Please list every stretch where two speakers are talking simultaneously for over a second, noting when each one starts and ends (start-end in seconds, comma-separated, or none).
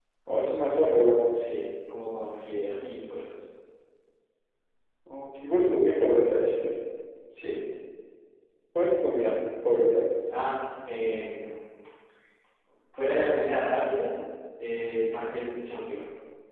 none